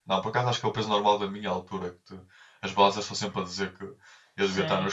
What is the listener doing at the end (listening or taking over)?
taking over